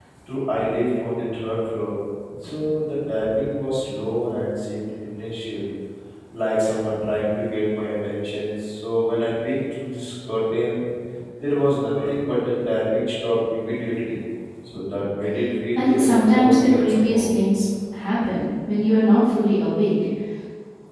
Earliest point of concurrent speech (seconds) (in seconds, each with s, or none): 15.8 s